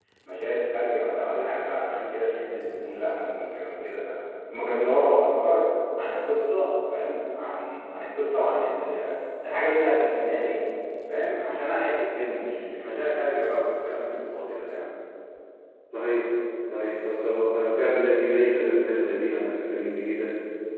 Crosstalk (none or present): none